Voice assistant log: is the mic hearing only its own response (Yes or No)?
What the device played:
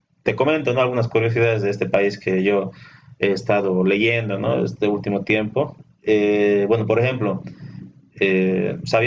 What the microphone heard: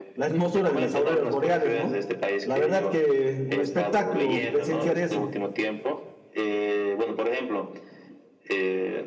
No